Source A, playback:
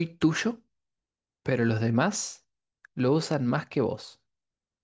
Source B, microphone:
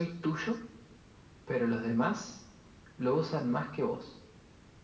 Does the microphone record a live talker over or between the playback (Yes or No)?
No